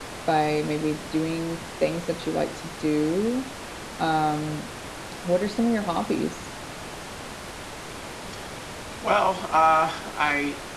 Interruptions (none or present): none